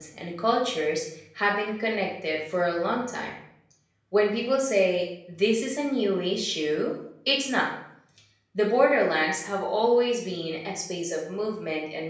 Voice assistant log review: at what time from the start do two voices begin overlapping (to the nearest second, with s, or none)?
none